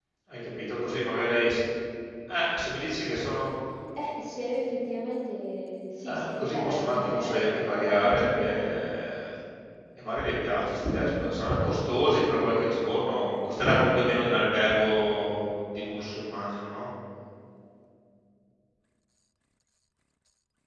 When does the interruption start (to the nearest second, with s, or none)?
6 s